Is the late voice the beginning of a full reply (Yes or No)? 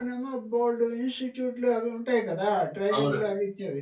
No